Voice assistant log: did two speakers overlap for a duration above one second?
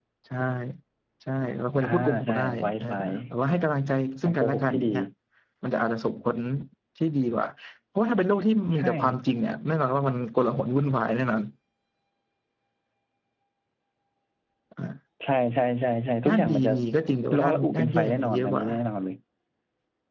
Yes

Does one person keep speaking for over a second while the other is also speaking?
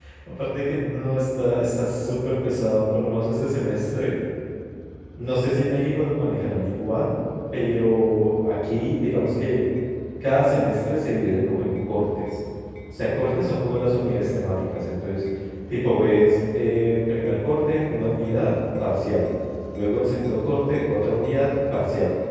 No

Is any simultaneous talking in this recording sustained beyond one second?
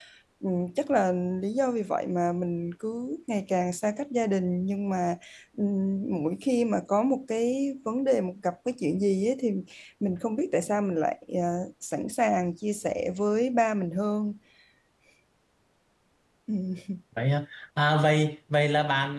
No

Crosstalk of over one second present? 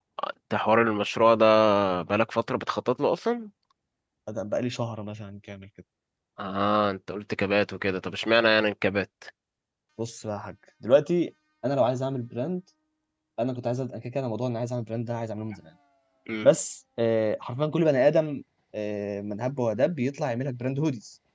No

